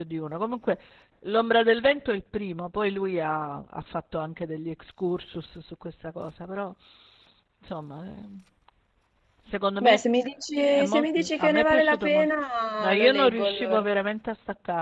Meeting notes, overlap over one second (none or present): present